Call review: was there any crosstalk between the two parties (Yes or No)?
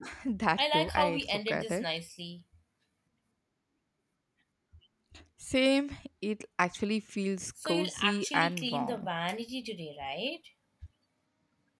Yes